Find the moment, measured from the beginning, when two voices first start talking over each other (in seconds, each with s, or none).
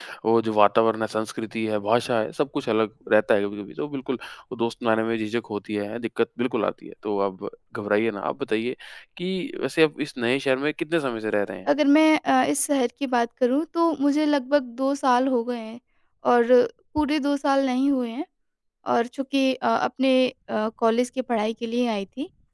none